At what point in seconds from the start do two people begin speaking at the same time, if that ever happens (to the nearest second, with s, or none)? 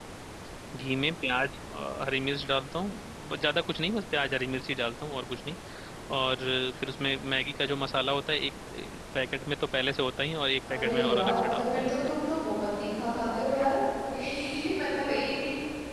11 s